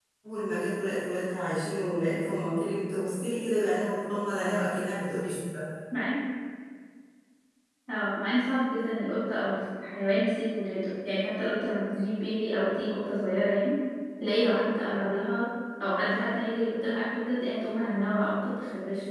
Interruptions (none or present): none